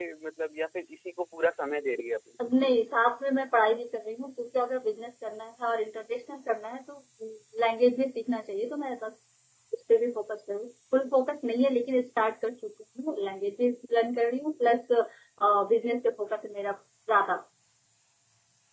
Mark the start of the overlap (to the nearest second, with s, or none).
none